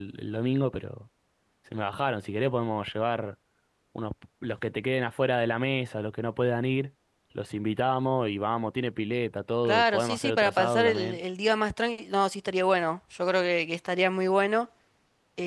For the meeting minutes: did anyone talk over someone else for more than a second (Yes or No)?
Yes